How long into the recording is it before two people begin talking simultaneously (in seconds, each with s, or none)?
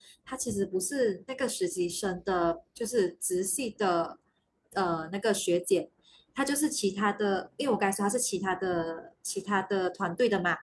none